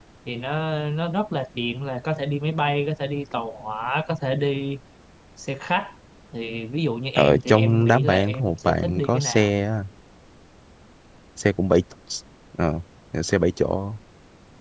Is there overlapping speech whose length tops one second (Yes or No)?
Yes